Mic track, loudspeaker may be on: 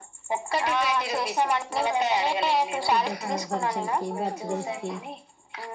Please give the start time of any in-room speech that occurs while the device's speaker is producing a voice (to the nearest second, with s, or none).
3 s